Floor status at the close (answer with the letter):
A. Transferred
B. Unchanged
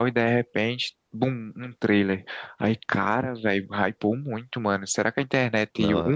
B